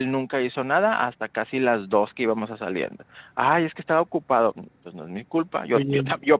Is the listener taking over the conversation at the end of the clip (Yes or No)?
No